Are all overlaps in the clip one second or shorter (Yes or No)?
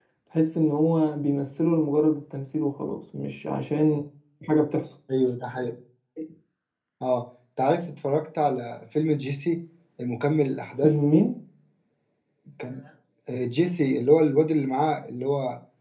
Yes